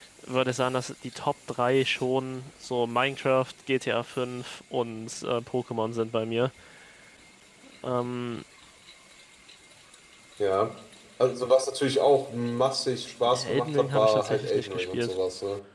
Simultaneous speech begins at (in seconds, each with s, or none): 13.3 s